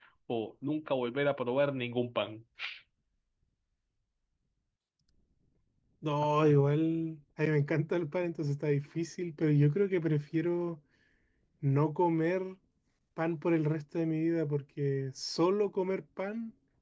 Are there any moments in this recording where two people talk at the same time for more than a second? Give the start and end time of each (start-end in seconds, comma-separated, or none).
none